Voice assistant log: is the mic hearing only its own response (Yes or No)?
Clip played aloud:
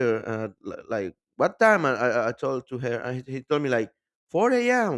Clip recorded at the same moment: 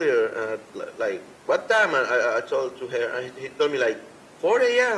Yes